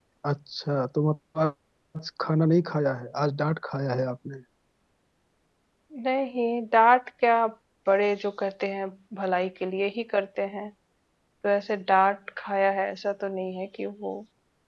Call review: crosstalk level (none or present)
none